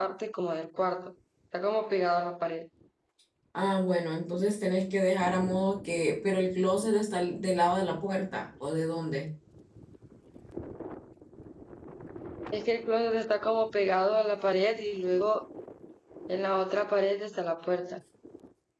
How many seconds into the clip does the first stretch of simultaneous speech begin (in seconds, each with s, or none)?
none